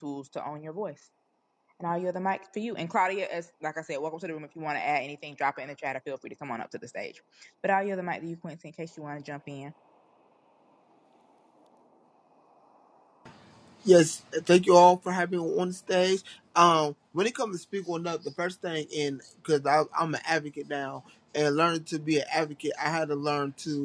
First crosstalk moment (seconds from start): none

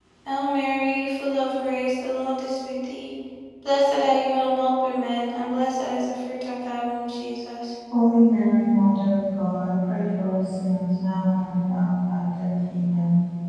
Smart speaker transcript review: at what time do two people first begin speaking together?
none

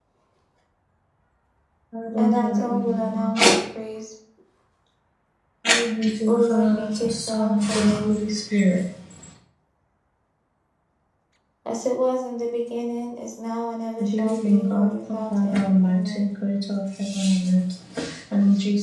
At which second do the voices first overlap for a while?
2.2 s

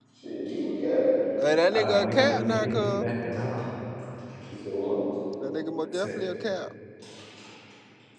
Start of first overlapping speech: 1.7 s

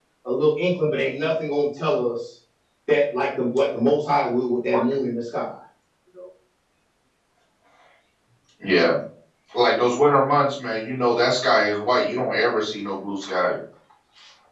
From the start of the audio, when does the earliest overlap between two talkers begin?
none

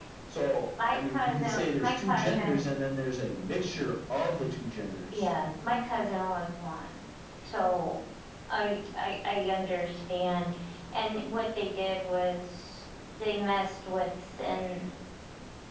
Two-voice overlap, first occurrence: 0.9 s

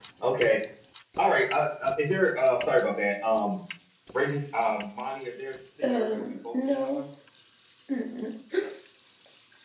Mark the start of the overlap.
5.8 s

